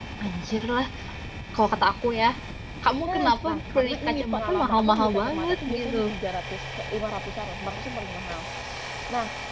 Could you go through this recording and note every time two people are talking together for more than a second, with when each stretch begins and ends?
3.1-6.0

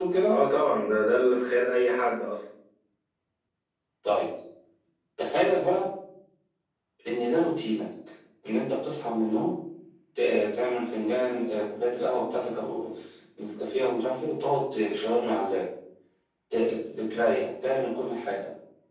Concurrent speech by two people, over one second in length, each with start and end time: none

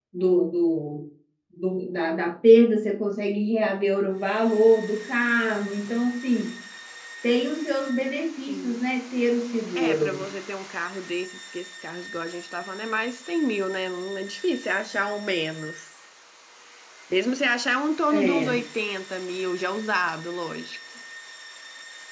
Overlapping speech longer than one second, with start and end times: none

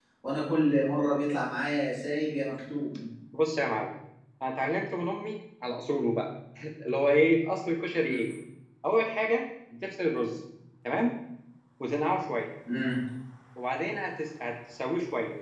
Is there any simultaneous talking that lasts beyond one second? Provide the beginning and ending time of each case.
none

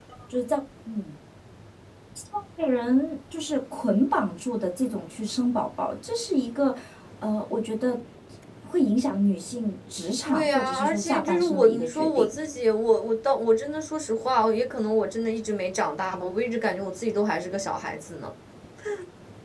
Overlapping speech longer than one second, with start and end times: 10.2-12.3

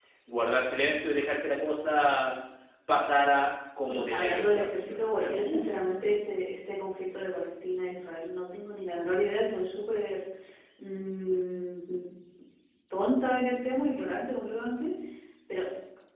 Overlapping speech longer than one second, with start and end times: 3.9-5.7

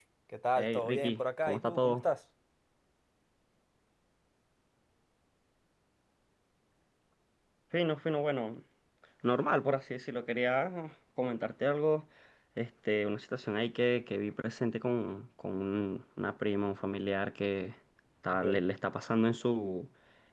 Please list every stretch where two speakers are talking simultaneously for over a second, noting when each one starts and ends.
0.6-2.0

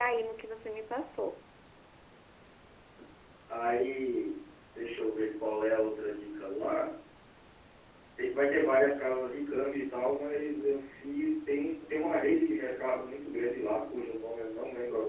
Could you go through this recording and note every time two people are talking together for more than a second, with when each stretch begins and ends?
none

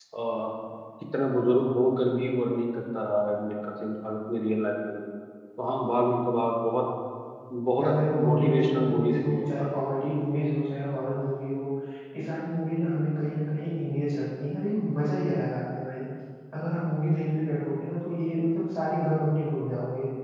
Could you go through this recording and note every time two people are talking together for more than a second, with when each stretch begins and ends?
7.8-9.7

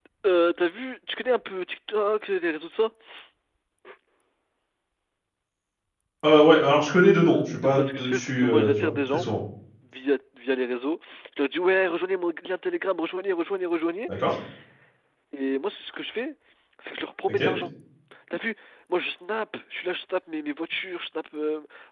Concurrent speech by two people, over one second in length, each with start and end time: 7.6-9.2

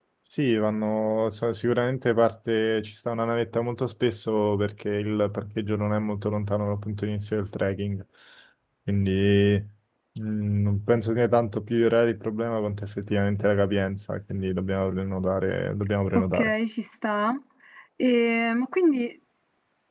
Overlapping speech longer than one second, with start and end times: none

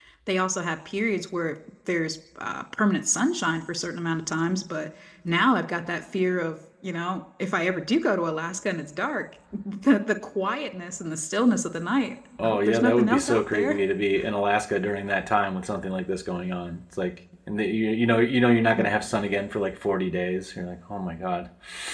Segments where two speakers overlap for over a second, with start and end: 12.4-13.8

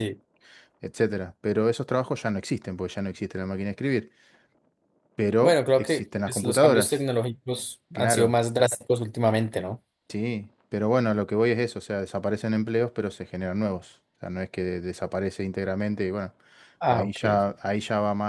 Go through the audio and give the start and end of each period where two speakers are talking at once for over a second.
5.4-7.0

